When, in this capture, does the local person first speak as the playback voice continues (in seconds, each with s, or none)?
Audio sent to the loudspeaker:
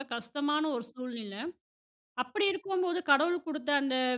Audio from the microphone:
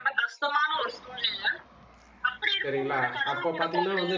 2.6 s